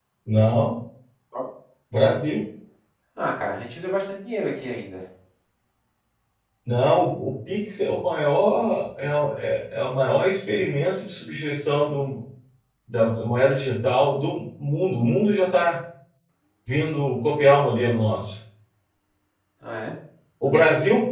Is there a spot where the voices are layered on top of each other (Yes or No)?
No